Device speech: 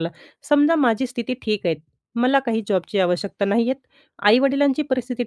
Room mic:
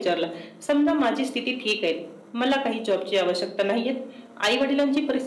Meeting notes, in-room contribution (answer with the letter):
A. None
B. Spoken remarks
A